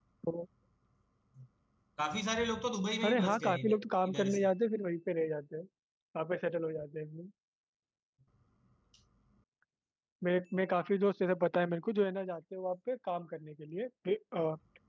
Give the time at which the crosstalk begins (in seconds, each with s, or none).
3.0 s